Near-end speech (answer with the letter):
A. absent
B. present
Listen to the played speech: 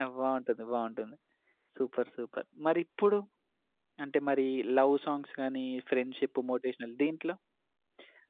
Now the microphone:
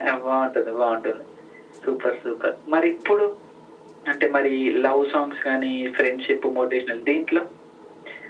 A